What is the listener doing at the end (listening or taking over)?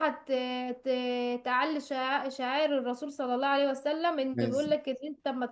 listening